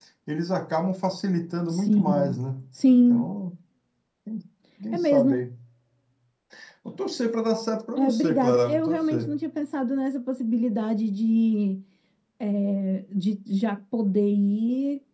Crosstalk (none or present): present